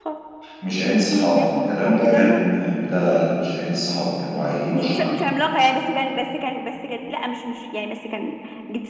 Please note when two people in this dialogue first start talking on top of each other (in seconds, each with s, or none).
0.8 s